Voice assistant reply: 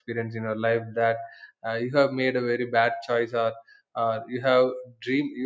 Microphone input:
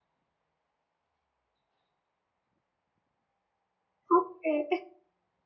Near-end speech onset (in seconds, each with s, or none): 4.2 s